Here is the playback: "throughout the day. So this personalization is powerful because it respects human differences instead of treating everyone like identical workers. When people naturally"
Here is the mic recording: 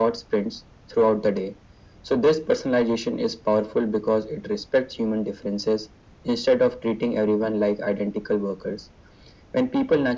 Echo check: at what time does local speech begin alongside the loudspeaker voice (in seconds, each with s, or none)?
none